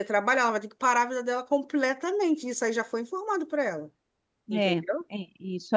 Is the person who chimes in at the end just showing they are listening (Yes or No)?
No